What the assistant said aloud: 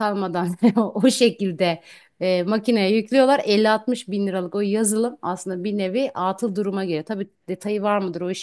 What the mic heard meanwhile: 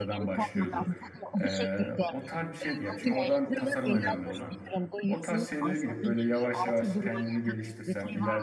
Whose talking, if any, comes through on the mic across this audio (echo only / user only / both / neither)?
both